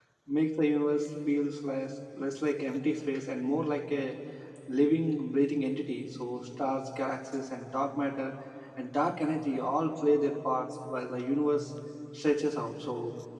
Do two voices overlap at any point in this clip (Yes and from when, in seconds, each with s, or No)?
No